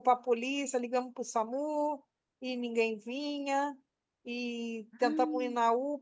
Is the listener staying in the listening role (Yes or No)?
Yes